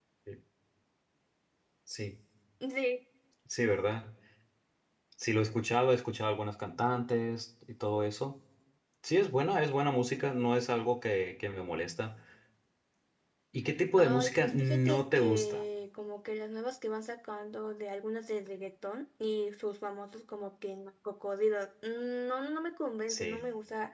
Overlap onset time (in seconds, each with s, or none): 14.0 s